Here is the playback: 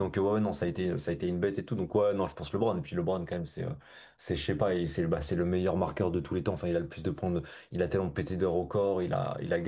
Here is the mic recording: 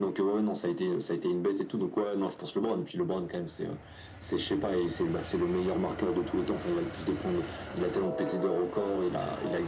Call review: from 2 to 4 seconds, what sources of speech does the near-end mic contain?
echo only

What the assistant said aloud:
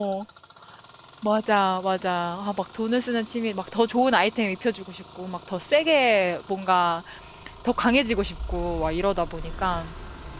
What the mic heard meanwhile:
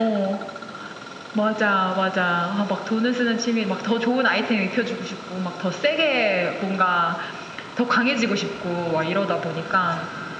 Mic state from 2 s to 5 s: echo only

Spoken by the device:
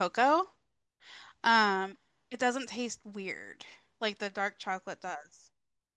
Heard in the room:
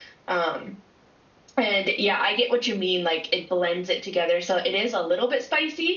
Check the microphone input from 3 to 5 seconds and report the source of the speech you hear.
user only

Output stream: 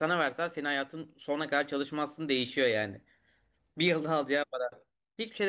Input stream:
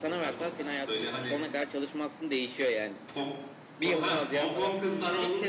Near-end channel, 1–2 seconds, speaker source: both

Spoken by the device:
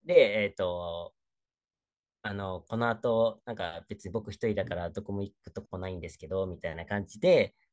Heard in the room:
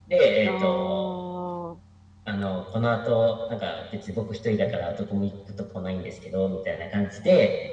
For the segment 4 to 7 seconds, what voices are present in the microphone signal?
echo only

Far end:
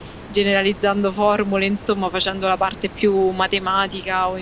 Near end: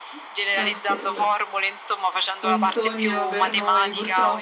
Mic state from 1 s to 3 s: both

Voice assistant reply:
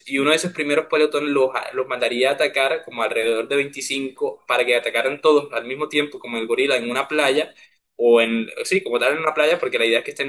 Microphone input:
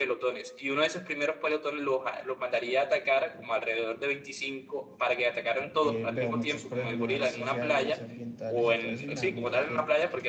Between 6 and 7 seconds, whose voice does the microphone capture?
both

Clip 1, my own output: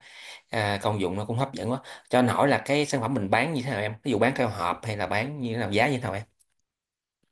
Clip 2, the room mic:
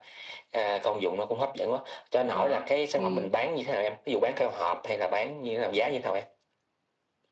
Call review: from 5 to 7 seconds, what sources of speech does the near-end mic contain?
echo only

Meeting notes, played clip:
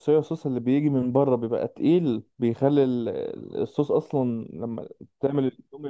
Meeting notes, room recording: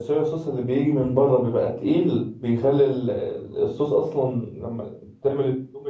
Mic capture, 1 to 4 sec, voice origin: echo only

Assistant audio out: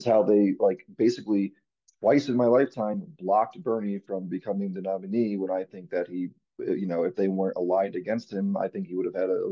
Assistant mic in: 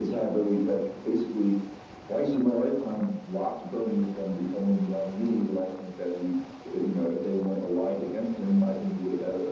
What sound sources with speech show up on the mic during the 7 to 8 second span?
echo only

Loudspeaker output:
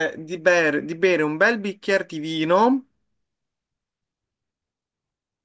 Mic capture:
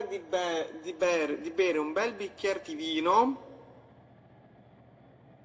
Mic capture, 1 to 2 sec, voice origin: echo only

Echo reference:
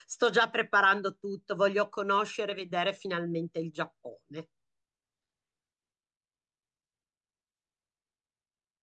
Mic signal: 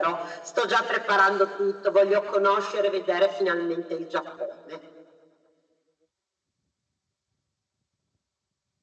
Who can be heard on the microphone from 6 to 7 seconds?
neither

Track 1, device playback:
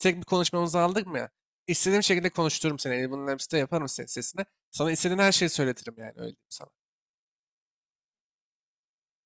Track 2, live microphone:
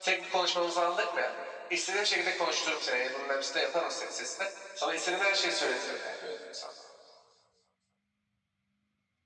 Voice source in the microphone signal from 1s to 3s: echo only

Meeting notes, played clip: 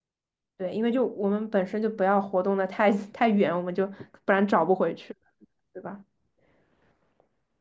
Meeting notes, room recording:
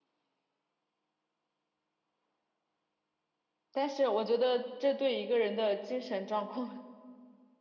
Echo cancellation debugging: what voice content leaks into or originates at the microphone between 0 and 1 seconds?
neither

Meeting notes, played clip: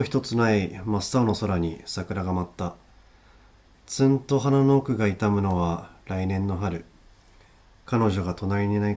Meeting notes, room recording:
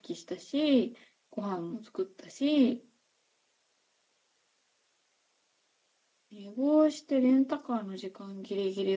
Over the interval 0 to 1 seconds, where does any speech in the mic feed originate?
user only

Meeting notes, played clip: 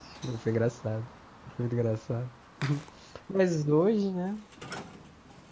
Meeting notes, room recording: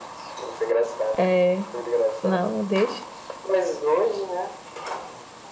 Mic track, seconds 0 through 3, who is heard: both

